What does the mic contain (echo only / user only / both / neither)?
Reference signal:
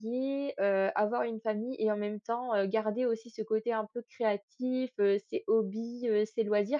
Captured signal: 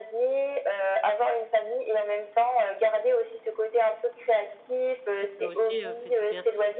both